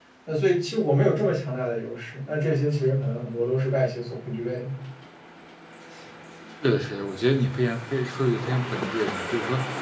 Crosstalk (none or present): none